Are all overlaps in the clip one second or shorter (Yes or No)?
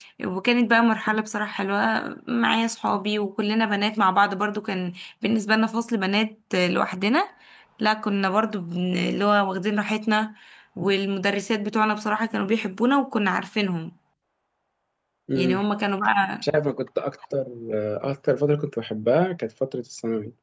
Yes